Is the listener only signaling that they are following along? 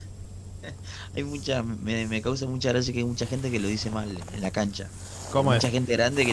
Yes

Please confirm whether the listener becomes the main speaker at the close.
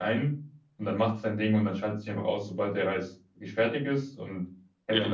Yes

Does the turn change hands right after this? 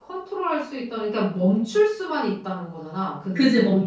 Yes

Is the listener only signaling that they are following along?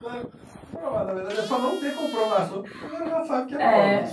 No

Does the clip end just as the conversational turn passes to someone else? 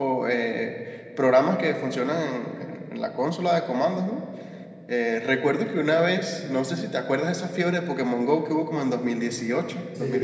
No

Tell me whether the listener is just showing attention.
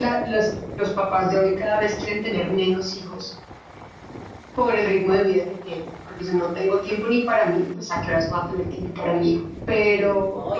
No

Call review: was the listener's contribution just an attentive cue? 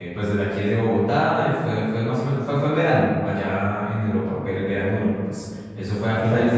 Yes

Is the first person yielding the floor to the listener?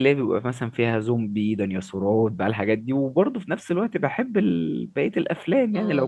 No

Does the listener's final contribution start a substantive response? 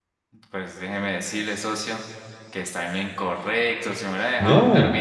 No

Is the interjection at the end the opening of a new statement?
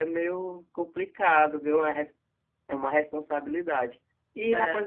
No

